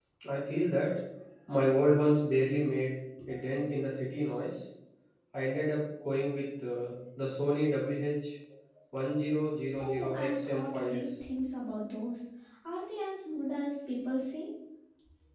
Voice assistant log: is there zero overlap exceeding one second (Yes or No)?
No